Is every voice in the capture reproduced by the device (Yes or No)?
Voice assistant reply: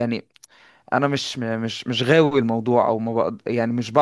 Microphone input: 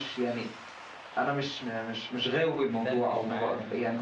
No